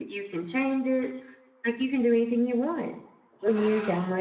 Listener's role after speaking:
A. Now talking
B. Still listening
B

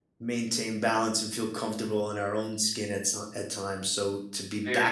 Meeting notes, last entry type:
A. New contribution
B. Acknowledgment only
B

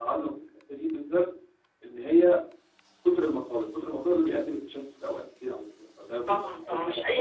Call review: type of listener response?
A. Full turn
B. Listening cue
A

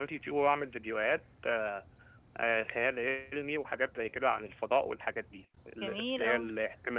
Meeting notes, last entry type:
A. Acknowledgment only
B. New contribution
A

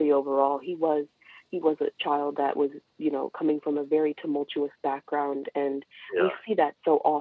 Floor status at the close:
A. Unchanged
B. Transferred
A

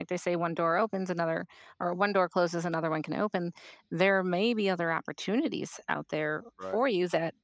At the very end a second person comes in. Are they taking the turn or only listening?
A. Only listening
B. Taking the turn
A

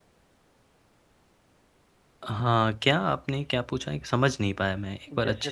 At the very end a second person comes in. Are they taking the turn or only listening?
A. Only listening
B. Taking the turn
B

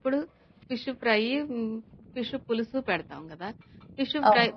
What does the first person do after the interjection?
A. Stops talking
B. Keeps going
B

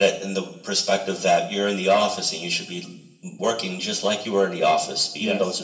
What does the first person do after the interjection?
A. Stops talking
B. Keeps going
B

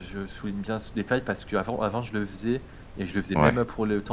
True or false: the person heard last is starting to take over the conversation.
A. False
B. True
A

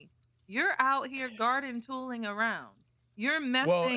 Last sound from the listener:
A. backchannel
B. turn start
A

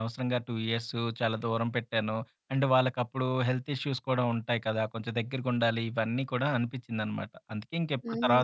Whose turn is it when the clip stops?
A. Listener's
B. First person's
A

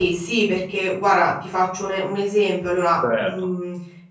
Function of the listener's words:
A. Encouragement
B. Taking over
A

